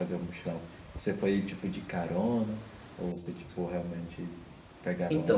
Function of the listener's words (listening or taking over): taking over